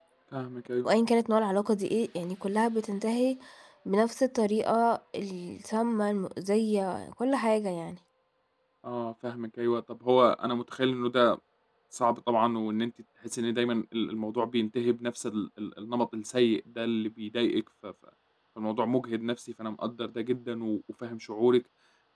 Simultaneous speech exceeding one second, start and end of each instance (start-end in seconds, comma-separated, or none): none